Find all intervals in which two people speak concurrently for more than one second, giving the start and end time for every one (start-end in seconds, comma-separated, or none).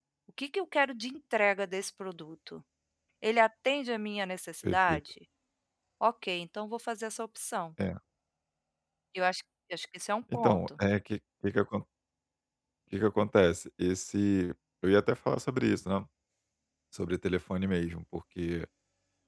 none